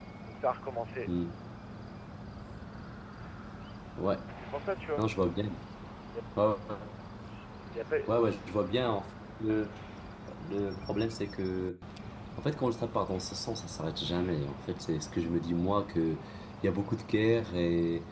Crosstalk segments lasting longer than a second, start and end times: none

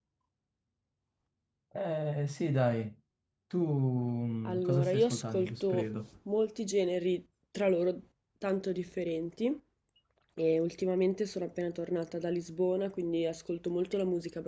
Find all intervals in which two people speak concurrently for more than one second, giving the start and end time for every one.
4.5-6.0

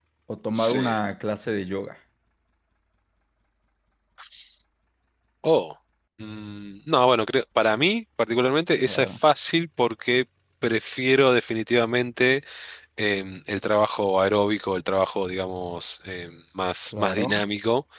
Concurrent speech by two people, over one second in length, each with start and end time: none

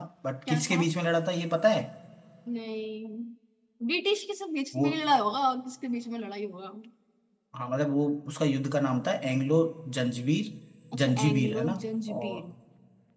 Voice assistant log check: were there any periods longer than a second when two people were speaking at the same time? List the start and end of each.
11.0-12.4

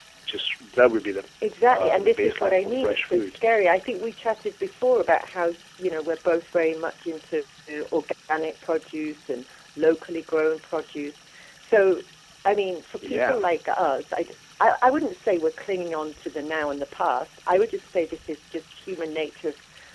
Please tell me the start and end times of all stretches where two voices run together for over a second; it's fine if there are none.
1.7-3.4

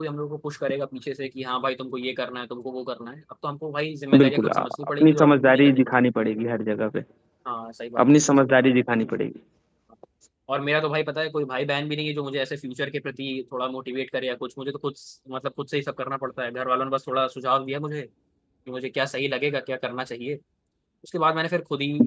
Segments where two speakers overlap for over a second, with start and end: 4.1-6.1

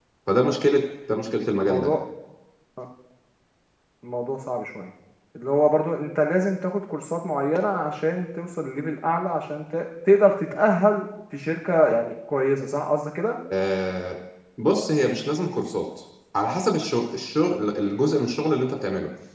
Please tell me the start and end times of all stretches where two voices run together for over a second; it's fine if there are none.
none

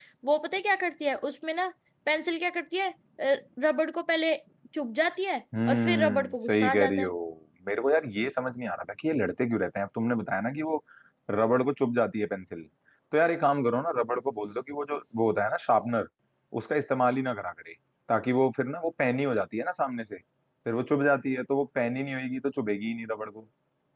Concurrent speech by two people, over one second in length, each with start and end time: 5.7-7.1

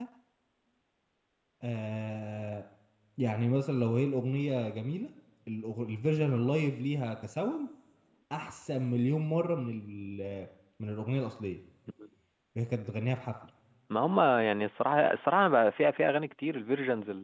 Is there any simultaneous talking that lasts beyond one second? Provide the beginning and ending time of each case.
none

